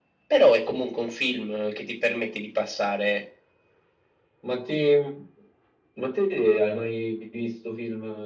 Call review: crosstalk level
none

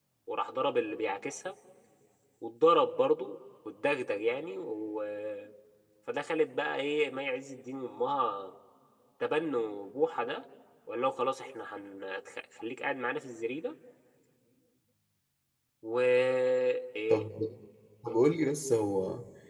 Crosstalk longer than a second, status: none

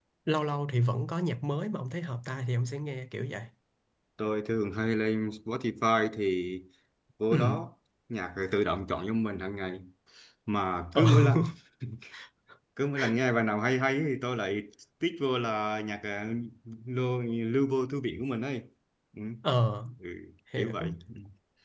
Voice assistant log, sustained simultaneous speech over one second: none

